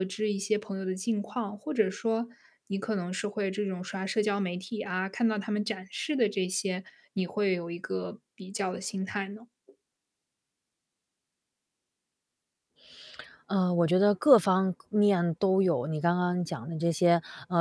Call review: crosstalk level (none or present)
none